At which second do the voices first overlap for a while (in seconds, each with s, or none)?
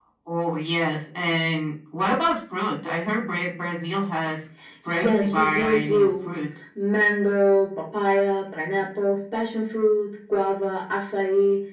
5.0 s